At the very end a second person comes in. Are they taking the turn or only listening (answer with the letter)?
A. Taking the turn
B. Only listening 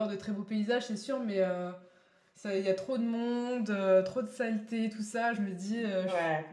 B